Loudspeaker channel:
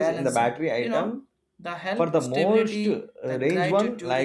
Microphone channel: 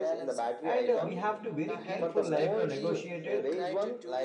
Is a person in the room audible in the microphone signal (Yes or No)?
Yes